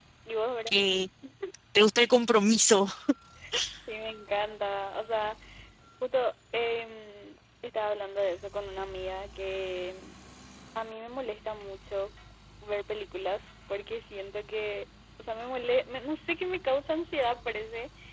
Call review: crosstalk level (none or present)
none